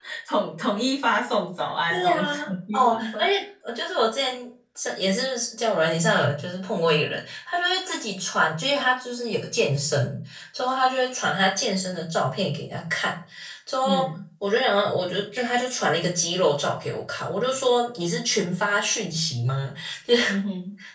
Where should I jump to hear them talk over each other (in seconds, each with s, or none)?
1.9 s